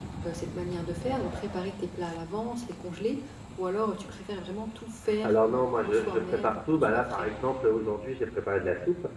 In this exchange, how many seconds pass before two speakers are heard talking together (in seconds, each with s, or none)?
5.0 s